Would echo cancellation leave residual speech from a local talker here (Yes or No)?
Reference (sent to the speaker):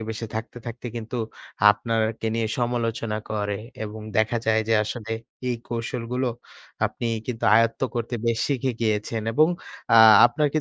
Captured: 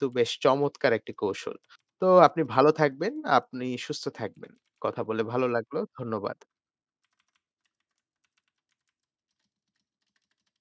Yes